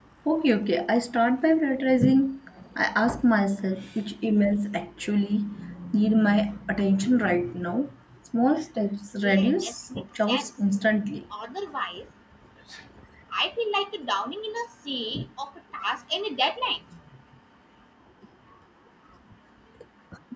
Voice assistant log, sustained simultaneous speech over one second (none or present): present